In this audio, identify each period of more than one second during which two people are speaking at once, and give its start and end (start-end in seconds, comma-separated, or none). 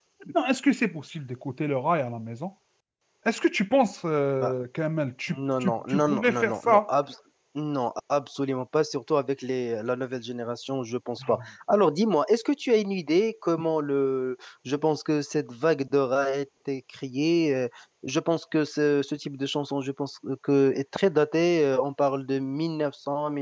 5.3-6.8